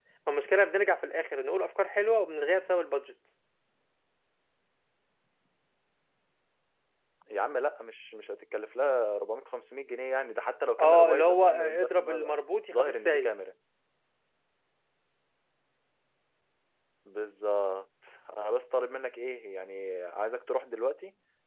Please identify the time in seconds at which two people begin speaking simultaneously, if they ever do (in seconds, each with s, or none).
10.8 s